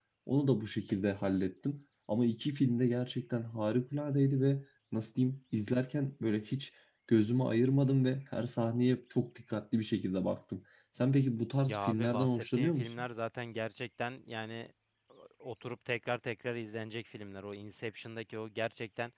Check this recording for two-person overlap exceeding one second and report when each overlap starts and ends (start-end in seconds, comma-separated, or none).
11.7-13.1